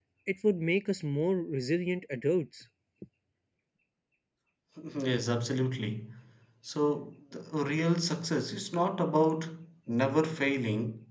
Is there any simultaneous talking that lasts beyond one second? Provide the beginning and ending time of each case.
none

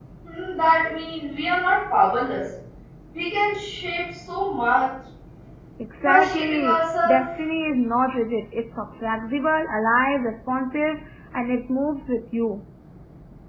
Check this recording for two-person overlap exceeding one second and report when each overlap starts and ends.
6.0-7.2

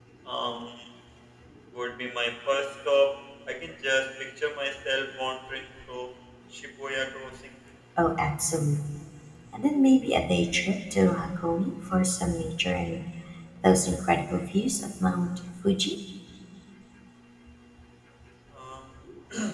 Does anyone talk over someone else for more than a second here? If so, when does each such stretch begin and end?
none

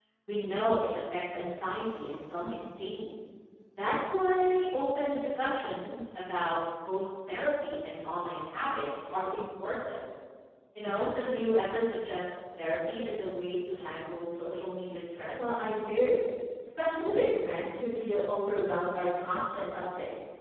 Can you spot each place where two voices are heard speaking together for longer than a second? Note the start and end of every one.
none

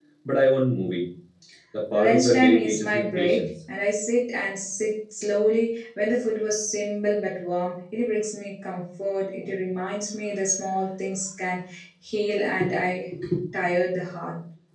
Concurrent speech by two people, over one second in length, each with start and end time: 1.9-3.5

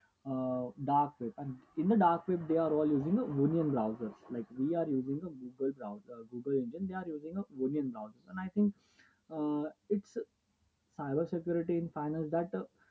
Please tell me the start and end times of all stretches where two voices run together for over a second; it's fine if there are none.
none

